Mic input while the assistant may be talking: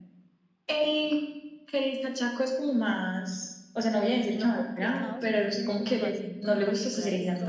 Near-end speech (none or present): present